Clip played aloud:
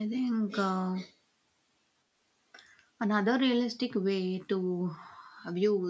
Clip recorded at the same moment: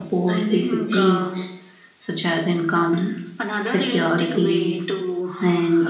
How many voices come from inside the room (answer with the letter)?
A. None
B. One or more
B